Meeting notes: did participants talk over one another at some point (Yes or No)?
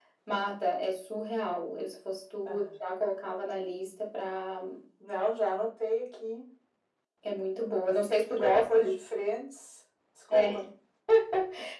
Yes